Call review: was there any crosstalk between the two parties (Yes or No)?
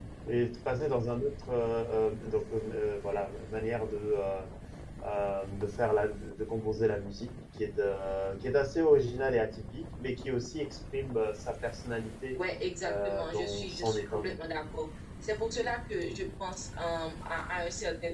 Yes